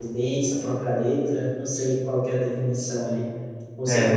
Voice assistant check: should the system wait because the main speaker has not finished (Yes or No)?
Yes